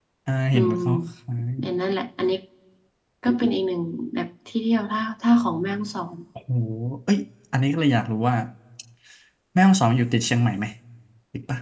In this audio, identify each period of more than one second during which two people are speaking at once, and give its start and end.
none

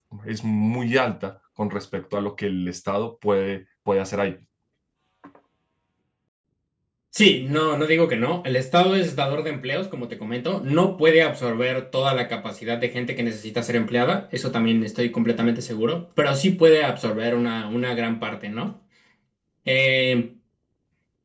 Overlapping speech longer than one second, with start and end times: none

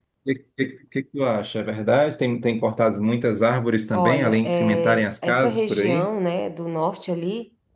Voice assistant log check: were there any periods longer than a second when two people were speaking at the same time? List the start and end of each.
3.9-6.1

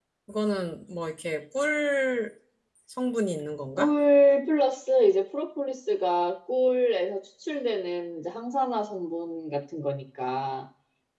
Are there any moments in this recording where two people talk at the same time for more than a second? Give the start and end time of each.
none

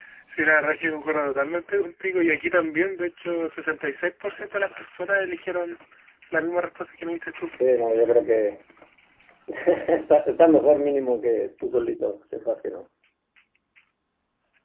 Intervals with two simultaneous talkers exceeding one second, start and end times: none

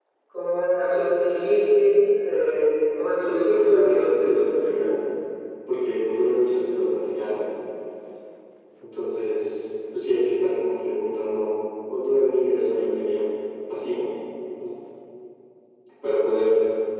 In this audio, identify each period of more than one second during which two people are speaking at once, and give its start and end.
3.2-4.7

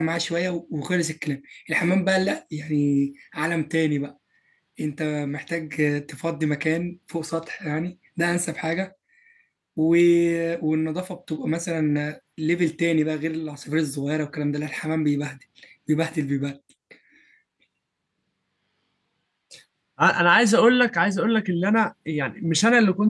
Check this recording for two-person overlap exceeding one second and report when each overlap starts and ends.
none

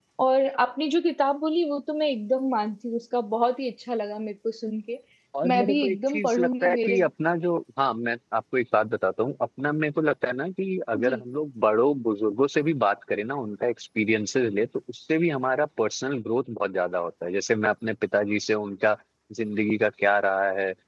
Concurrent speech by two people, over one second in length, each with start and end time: 5.5-7.0

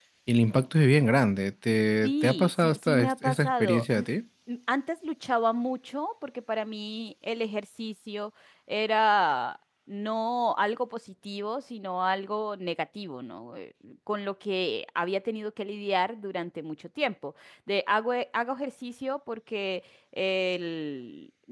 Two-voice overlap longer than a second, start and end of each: 2.0-4.1

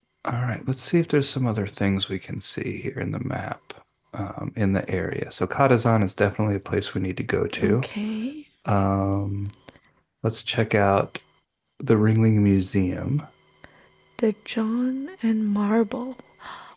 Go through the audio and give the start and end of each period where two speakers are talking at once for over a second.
none

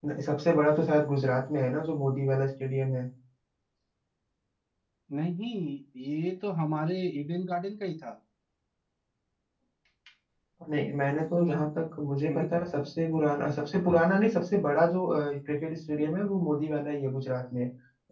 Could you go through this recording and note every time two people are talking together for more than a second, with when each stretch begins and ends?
none

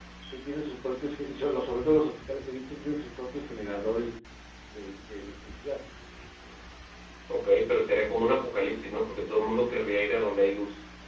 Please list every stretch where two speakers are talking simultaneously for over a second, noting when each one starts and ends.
none

